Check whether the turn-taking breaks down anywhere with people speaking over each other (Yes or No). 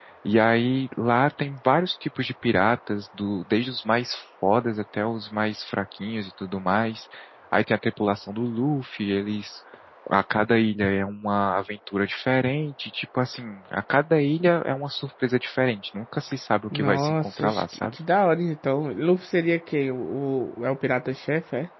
Yes